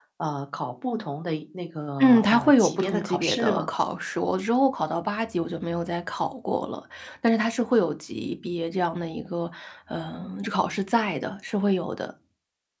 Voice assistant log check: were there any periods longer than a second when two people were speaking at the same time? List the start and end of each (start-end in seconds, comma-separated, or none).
2.0-3.7